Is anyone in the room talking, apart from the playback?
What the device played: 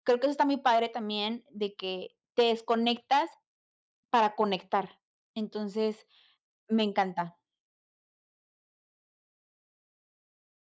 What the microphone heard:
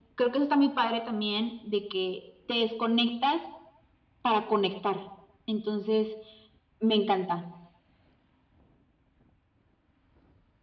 No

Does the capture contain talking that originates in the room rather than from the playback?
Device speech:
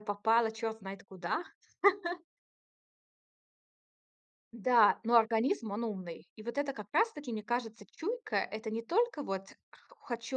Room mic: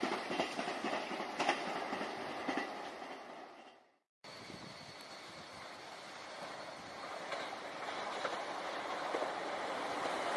No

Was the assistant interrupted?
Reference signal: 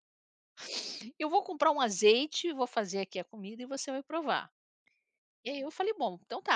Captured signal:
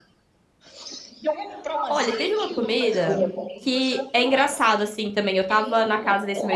Yes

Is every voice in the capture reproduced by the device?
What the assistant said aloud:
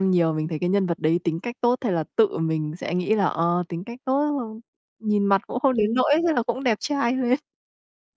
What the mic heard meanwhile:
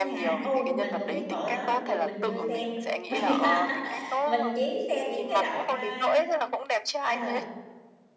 No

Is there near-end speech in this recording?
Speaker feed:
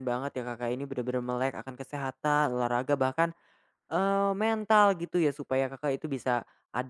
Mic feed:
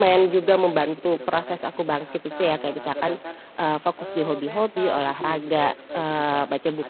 Yes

